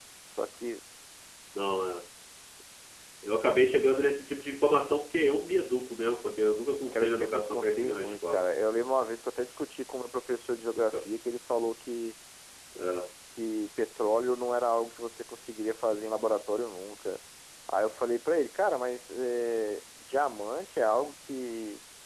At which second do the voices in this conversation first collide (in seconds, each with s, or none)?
6.9 s